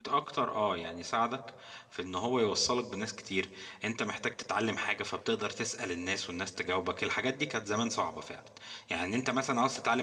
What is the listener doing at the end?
listening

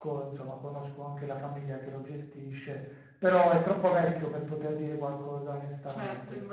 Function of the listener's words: taking over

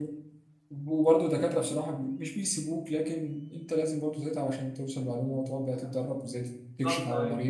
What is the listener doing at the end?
listening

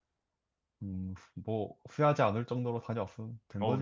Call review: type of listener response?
taking over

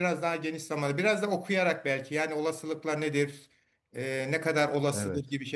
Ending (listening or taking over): listening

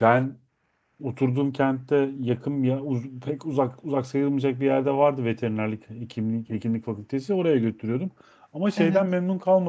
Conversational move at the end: listening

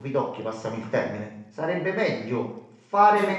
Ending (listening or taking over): listening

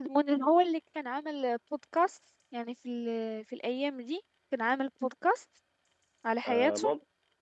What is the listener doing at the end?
taking over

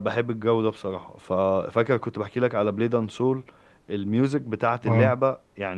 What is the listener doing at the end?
listening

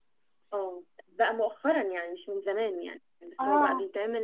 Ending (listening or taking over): listening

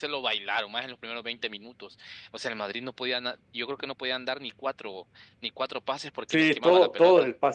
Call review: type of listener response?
taking over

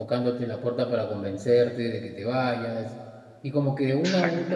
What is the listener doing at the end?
listening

